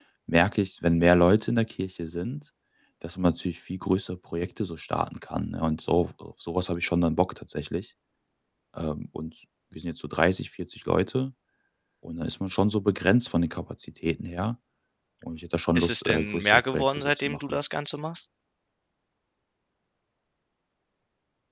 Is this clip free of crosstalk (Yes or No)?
No